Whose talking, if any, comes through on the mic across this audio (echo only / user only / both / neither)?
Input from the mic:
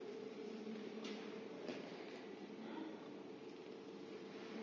neither